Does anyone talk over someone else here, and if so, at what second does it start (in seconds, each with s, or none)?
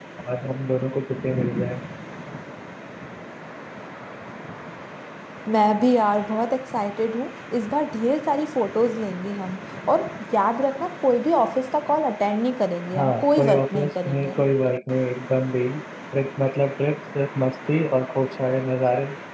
12.9 s